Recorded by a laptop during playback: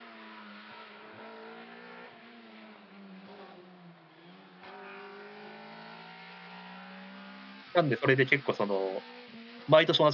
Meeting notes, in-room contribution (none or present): present